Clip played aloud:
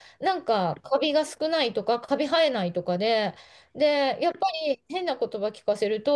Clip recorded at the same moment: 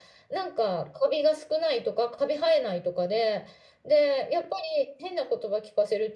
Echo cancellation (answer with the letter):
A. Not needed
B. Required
B